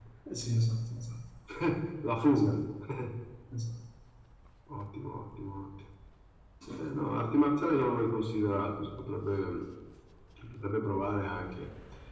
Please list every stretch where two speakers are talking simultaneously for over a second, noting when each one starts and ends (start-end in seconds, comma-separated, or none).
none